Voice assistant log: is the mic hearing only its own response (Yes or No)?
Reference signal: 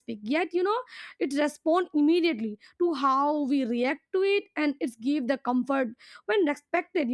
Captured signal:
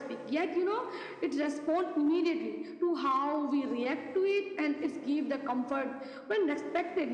Yes